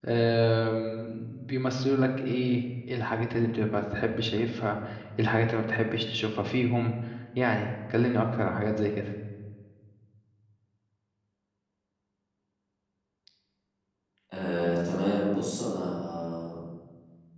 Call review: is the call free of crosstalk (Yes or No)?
Yes